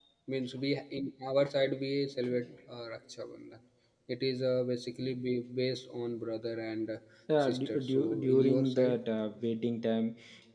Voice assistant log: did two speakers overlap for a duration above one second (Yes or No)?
Yes